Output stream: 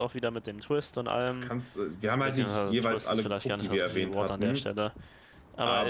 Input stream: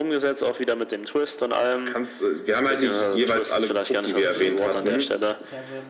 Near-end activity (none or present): present